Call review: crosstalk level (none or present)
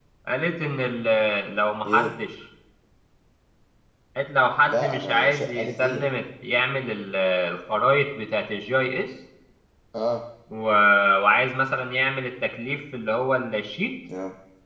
present